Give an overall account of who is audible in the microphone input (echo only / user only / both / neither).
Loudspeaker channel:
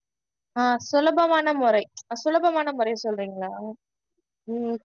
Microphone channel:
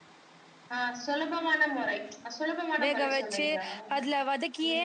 both